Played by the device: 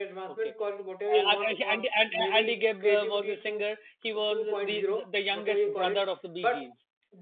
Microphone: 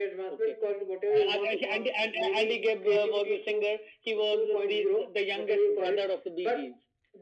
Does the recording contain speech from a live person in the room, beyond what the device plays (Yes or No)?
No